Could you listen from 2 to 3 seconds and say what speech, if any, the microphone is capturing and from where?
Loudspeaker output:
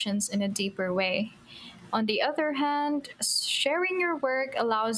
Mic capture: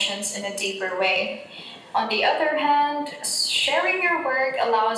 echo only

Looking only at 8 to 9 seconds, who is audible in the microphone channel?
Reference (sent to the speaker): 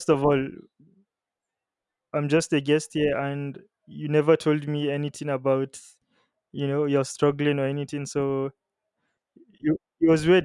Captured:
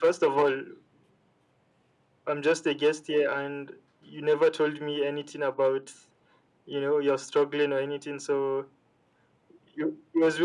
echo only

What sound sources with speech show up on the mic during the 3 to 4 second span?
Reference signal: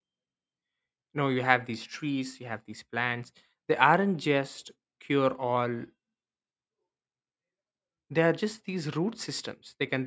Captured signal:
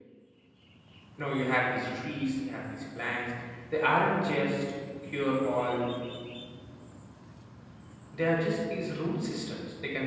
echo only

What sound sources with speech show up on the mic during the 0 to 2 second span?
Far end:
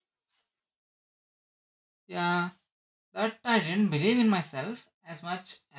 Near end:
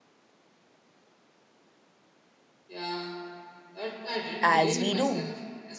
neither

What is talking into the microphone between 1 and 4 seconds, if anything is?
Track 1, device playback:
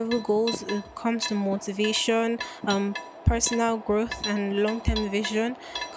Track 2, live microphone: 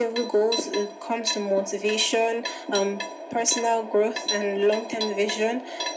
echo only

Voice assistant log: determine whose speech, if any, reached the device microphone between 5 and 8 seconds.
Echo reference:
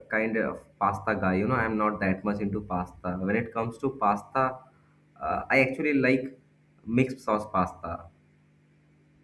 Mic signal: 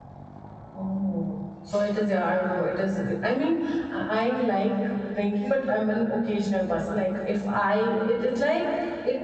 user only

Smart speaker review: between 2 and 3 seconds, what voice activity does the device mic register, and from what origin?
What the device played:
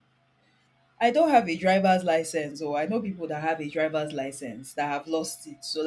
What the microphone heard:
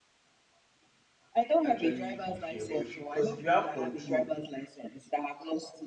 both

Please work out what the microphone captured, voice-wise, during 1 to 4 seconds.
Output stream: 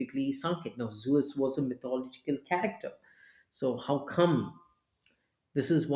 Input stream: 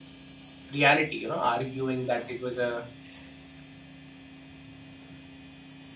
user only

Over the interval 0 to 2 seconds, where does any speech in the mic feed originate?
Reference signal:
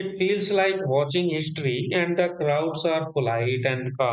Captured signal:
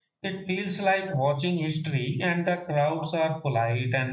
echo only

